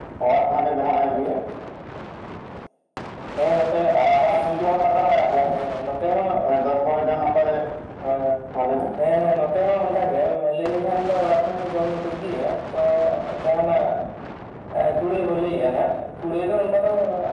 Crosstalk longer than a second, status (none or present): none